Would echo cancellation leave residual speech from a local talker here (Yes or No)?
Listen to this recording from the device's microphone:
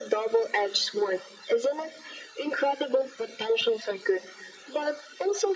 No